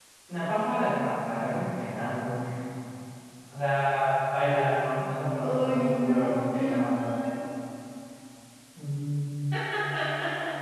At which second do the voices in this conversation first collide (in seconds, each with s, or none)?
5.4 s